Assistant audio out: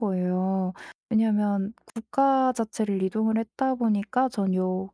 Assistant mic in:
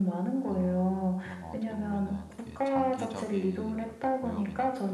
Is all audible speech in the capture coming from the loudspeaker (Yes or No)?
No